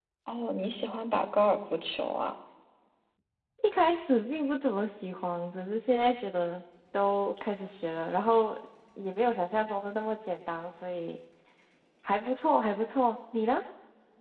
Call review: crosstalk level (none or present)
none